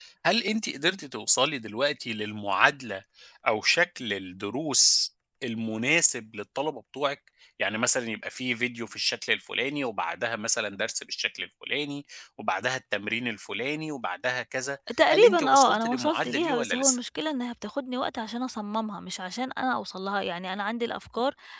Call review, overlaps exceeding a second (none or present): present